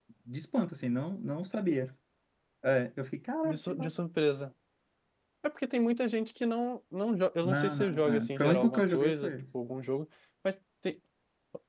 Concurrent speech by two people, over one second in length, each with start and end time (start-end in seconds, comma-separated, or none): 7.4-9.3